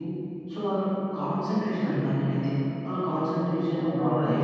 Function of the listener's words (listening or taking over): listening